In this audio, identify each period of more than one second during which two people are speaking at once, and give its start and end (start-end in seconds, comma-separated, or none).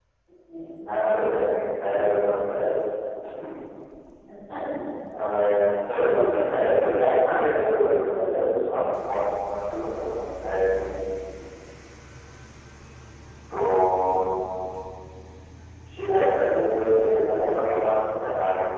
7.2-8.8